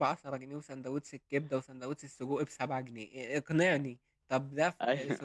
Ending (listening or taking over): listening